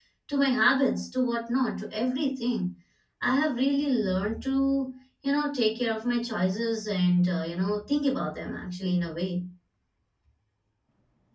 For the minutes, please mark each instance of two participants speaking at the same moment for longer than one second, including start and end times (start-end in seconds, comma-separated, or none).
none